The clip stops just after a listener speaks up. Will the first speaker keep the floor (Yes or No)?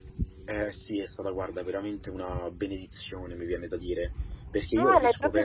No